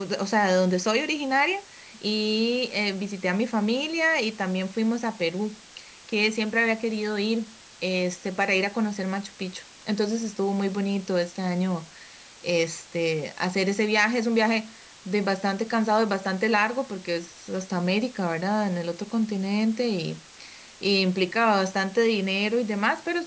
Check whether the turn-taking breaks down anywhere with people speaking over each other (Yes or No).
No